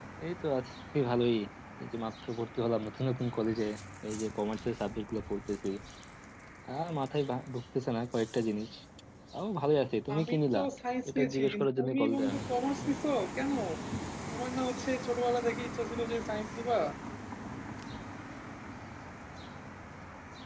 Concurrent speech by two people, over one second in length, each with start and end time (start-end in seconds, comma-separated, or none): 11.1-12.3